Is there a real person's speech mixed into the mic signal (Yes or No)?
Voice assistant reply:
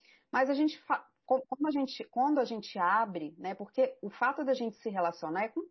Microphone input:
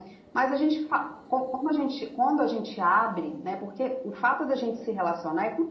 No